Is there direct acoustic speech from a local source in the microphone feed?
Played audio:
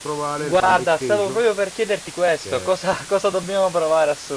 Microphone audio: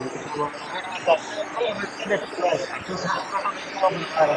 No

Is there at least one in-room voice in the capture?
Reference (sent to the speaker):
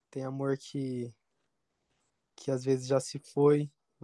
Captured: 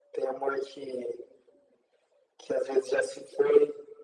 No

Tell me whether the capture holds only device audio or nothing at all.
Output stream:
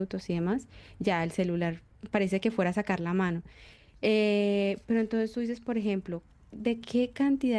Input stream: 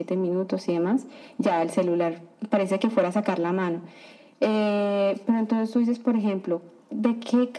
Yes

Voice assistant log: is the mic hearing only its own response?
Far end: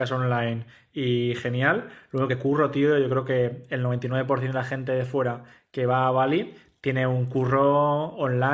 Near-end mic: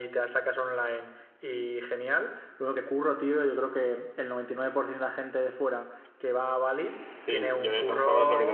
No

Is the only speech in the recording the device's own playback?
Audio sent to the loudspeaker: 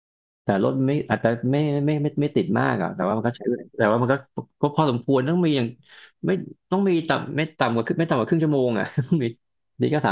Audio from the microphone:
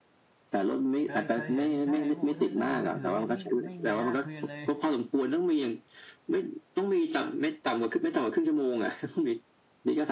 No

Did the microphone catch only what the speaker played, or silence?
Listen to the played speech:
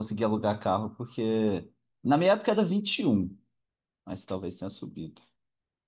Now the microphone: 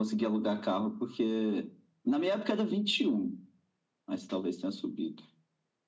Yes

